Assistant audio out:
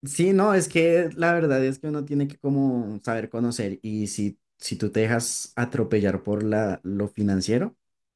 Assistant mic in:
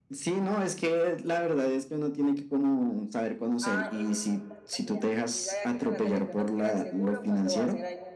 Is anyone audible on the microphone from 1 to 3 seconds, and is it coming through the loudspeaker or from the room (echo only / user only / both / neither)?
echo only